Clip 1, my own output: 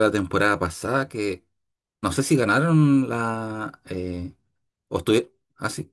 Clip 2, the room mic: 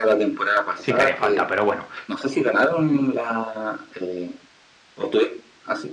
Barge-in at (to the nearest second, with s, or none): 1 s